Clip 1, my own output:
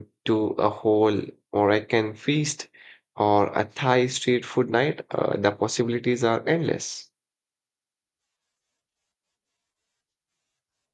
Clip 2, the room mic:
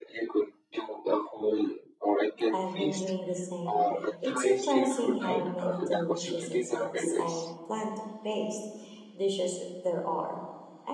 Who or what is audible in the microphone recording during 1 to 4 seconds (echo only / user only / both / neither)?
both